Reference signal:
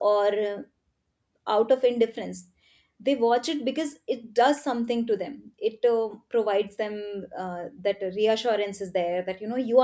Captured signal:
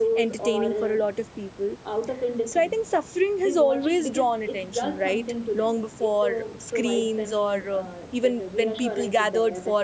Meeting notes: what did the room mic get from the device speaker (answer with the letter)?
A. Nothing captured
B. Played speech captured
B